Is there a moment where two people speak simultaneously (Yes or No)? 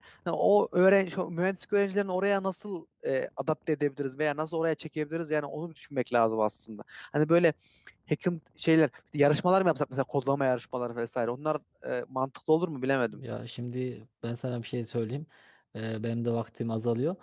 No